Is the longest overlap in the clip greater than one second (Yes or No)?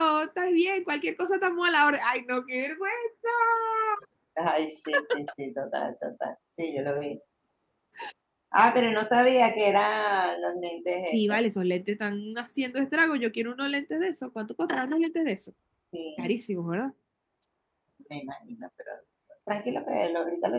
No